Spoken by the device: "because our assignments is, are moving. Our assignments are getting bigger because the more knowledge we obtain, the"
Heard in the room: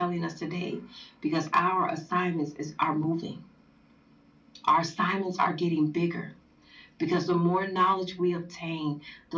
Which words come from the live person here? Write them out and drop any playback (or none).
none